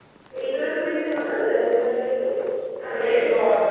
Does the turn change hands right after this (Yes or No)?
Yes